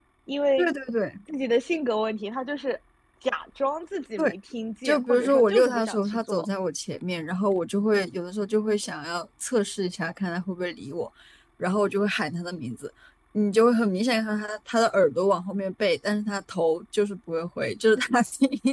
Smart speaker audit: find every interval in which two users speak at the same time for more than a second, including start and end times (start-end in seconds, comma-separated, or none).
4.8-6.5